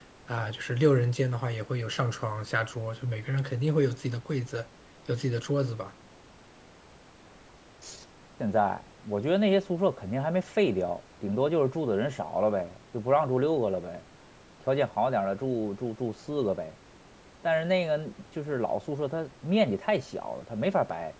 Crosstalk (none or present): none